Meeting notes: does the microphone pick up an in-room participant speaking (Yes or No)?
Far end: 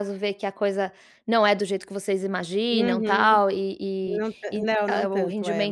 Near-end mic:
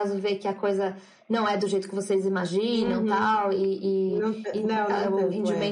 No